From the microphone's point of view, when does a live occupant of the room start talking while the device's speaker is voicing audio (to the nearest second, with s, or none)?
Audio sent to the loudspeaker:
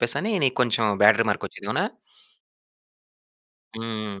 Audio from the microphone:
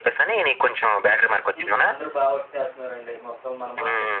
2 s